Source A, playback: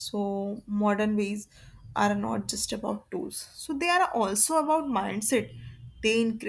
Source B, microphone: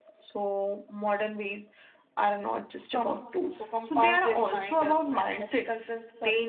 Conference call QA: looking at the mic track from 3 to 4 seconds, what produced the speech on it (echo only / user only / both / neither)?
both